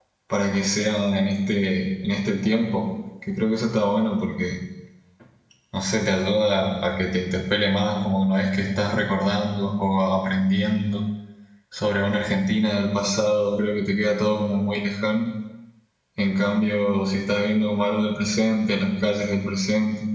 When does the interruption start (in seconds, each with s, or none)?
none